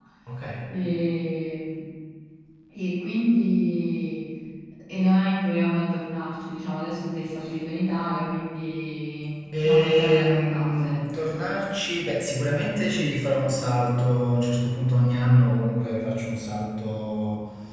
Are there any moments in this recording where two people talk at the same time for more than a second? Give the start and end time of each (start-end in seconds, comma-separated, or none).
9.6-11.0